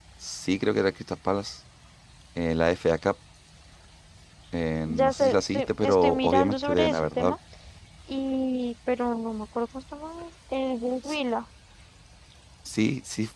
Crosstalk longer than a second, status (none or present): present